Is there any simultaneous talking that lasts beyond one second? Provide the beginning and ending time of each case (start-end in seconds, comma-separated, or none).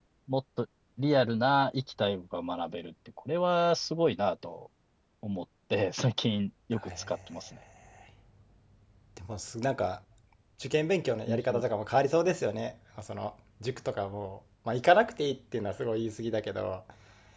none